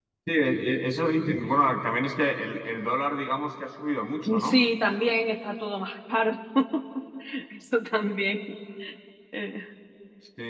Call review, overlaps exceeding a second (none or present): none